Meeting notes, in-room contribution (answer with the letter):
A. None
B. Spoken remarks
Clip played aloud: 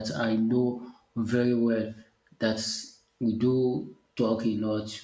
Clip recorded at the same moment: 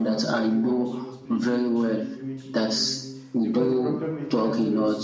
B